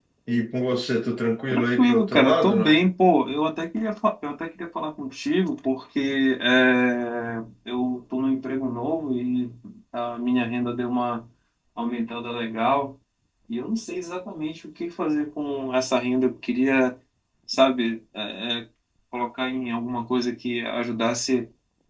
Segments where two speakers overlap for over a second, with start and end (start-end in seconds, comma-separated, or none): 1.5-2.8